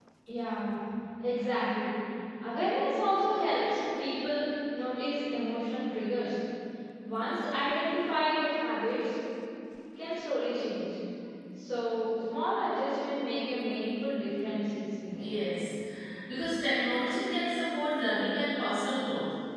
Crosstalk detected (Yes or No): No